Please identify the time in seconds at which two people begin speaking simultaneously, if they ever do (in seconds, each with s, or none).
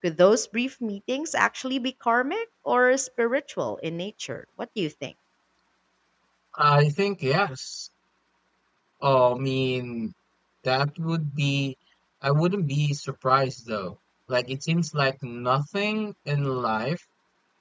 none